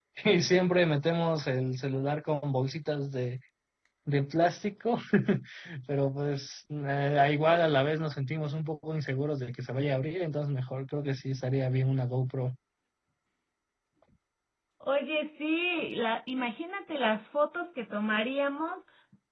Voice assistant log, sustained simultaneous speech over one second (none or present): none